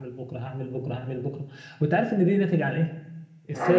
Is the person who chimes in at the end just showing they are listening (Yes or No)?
Yes